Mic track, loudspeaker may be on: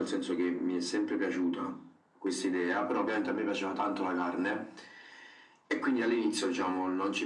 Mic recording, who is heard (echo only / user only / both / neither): echo only